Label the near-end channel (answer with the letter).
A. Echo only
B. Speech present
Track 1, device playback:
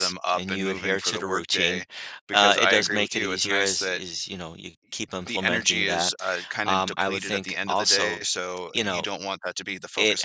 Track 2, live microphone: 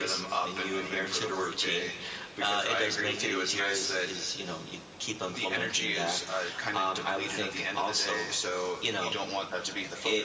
A